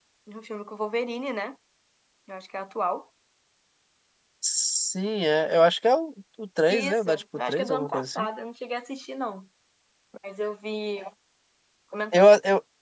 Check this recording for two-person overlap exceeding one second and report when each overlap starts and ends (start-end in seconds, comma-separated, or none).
6.7-8.3